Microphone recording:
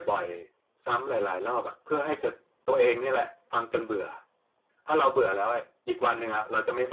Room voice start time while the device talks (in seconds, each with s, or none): none